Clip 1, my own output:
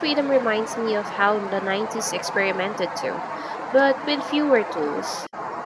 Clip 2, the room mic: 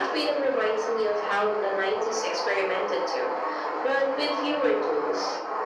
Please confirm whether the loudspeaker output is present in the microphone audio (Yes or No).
Yes